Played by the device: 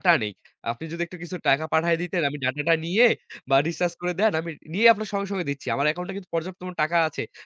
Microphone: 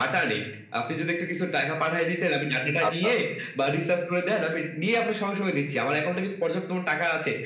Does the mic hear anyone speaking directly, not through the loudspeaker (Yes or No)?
Yes